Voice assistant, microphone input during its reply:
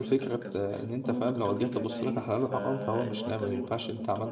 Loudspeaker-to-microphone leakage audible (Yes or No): Yes